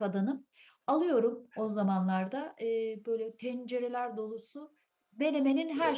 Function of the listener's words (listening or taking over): listening